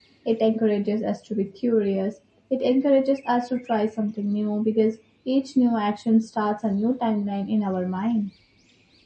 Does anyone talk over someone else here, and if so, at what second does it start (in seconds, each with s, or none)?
none